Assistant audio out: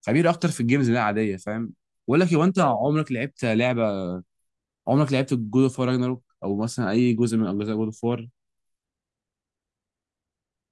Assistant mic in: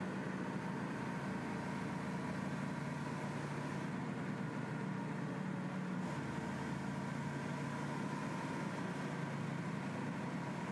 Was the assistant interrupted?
No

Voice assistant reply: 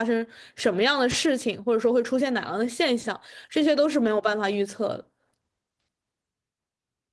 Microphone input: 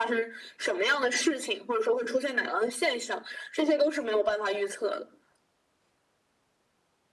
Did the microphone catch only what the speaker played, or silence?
Yes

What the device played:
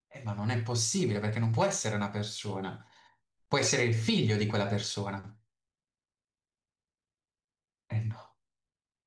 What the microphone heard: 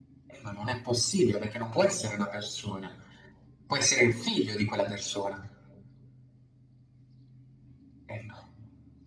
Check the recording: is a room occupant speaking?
No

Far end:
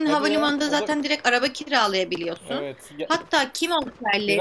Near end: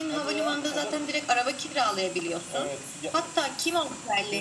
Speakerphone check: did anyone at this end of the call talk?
No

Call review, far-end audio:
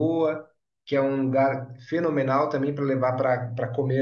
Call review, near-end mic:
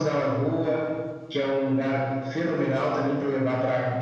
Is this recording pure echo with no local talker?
Yes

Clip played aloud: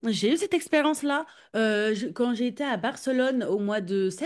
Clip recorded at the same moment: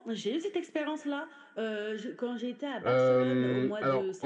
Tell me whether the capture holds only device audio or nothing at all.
No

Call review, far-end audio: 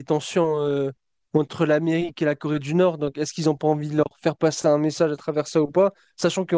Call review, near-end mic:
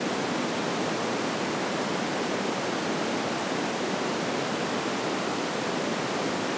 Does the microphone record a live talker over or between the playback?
No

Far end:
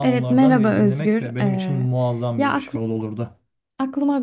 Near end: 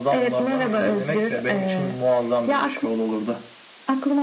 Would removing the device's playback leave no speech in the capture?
Yes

